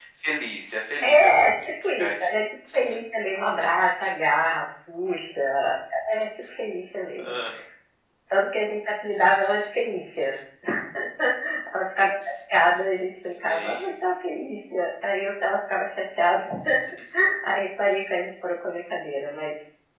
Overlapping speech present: Yes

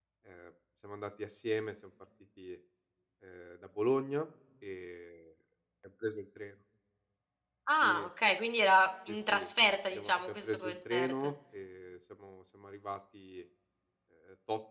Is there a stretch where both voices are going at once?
Yes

